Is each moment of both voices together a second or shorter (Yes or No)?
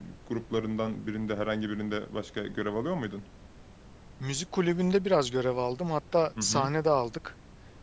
Yes